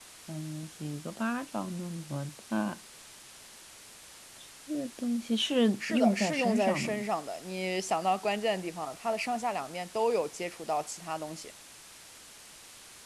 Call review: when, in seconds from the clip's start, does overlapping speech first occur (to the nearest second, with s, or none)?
6 s